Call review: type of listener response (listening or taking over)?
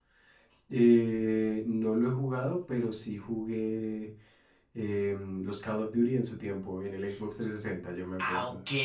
taking over